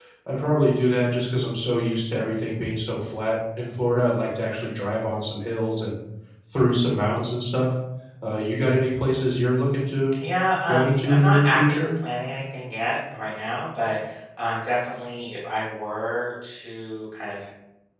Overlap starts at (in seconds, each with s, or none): 10.6 s